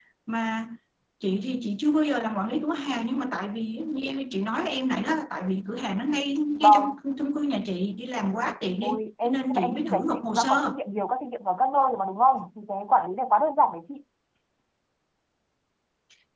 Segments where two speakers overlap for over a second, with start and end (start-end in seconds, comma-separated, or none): 8.8-10.8